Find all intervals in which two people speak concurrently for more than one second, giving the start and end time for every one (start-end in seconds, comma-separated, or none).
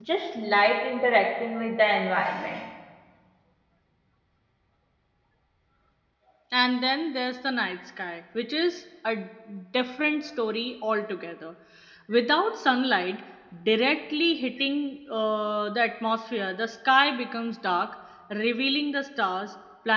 none